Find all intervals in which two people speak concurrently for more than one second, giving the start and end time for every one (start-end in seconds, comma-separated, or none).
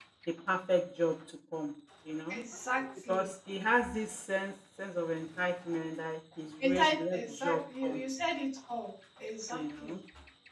6.6-8.0